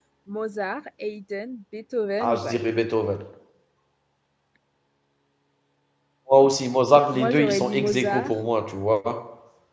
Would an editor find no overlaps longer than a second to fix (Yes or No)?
No